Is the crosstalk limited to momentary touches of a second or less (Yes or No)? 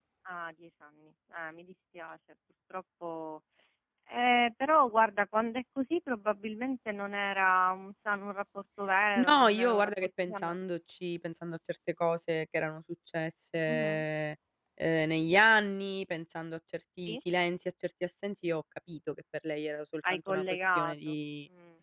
No